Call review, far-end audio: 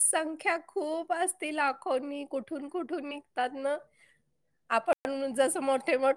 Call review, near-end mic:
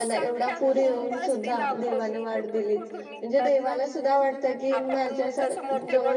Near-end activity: present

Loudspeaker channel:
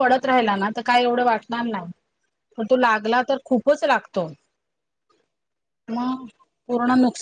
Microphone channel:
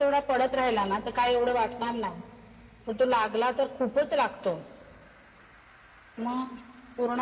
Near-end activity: none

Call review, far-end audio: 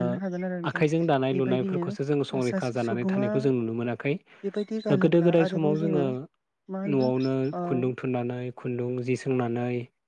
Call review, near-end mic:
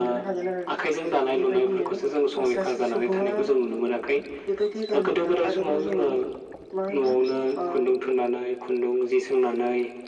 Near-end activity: none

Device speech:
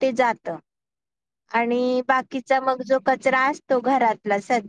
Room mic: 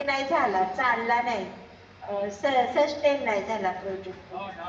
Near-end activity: present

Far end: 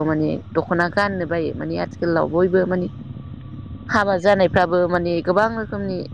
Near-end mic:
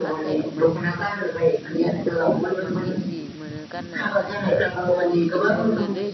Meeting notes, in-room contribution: present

